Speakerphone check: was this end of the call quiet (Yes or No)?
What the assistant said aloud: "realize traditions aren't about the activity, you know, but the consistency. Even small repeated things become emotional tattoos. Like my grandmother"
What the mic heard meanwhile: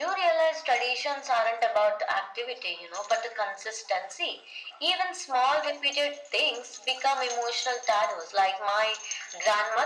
Yes